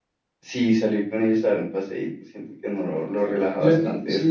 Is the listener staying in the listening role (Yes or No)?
No